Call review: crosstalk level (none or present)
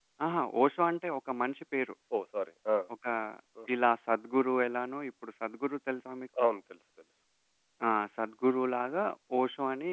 none